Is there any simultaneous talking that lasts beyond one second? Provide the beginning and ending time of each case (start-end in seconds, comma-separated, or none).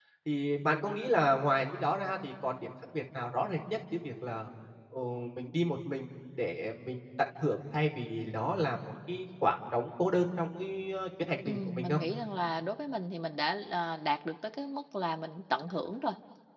none